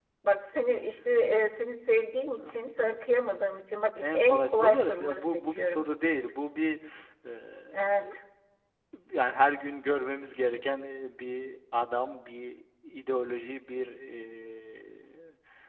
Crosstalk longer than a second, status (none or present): present